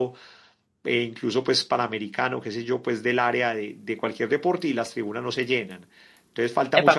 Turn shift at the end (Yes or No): Yes